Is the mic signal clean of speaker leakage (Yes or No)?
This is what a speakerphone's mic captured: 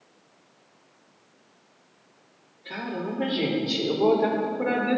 Yes